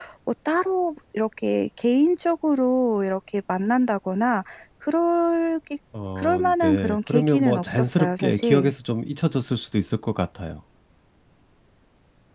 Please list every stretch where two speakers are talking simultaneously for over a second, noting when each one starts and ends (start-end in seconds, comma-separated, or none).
6.2-8.7